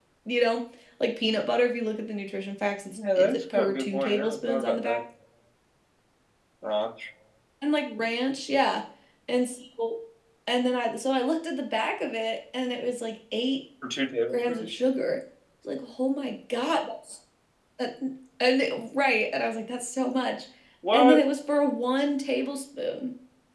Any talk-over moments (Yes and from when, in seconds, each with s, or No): Yes, from 3.0 s